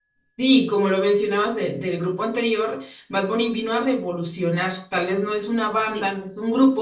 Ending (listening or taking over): listening